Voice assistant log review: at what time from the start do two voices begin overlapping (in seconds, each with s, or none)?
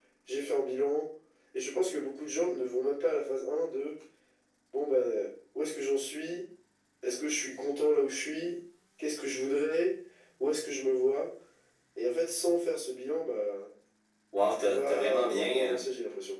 14.5 s